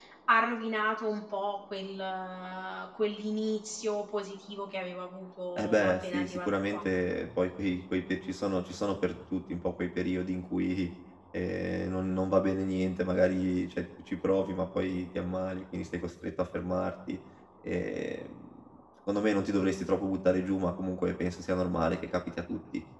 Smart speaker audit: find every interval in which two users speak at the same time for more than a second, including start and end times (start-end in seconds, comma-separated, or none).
5.6-6.8